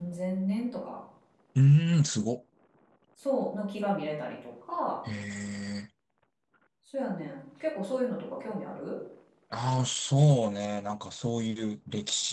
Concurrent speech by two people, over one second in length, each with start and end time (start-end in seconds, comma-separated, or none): none